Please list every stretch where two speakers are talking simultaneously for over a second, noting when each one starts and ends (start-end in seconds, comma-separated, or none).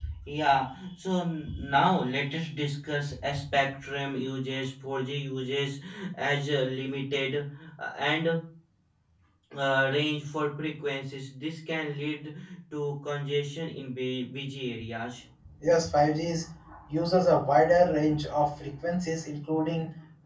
none